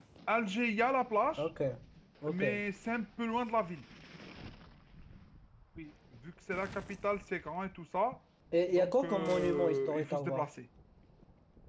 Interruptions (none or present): present